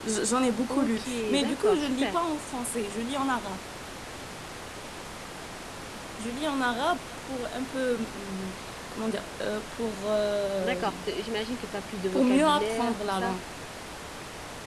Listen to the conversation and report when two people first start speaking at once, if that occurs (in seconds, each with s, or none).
0.7 s